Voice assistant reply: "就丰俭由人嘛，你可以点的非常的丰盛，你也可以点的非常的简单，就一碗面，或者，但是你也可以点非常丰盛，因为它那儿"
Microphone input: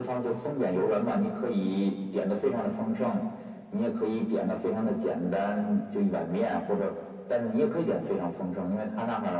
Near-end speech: none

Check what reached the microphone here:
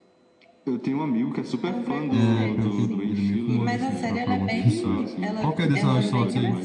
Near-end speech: present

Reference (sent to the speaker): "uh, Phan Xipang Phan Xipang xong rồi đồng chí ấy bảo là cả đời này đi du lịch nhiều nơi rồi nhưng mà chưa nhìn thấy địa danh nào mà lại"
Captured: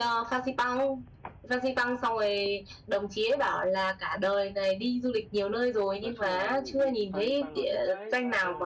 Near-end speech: present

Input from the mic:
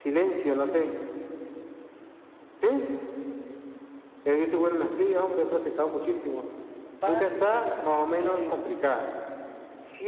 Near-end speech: present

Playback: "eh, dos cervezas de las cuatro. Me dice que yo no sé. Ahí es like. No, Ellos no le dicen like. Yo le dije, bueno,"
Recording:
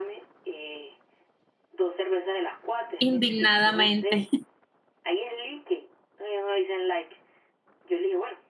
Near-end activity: present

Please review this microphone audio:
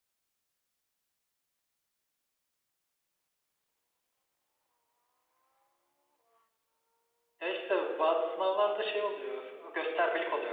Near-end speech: present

